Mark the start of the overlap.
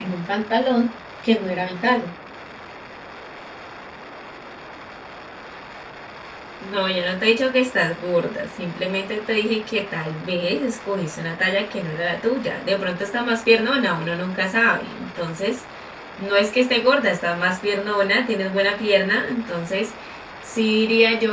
none

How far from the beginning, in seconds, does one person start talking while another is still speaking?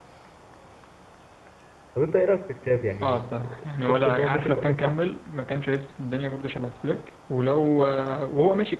3.0 s

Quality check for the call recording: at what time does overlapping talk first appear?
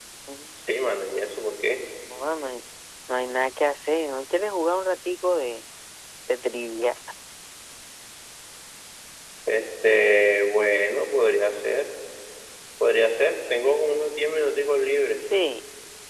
none

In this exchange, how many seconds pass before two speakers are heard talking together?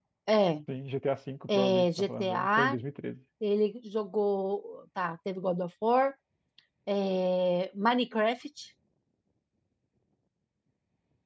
1.5 s

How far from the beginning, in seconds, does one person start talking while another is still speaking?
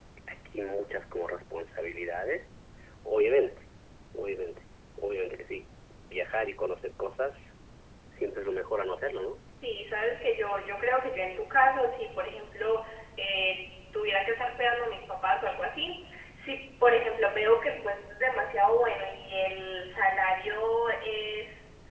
none

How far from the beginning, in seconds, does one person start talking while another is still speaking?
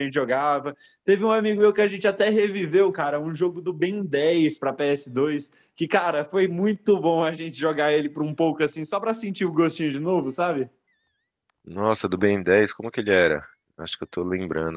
none

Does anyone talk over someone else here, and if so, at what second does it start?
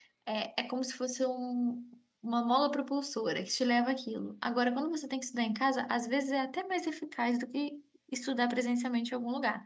none

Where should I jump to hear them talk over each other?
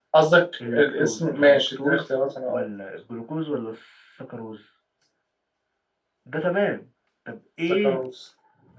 0.7 s

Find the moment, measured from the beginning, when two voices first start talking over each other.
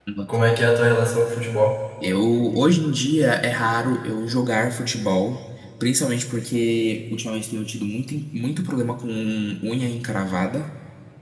none

